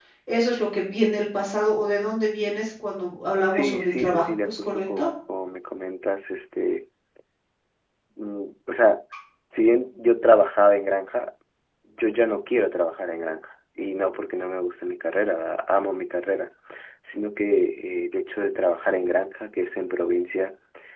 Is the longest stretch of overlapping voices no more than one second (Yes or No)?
No